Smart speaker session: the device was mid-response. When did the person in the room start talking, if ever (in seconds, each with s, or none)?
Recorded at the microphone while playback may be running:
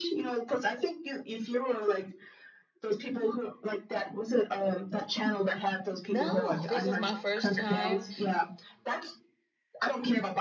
6.1 s